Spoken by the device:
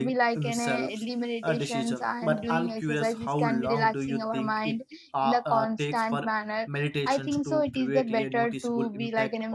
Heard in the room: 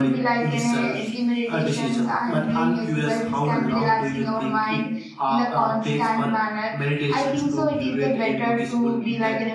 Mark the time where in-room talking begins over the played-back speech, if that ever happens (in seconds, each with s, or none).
none